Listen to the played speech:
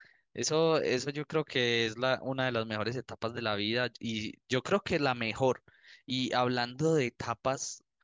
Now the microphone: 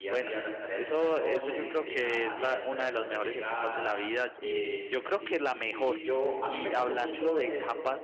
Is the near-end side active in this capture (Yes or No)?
Yes